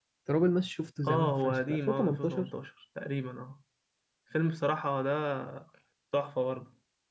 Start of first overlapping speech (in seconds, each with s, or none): 1.1 s